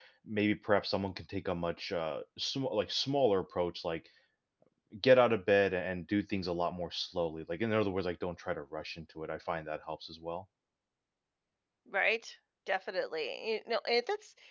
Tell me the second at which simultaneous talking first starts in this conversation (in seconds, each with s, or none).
none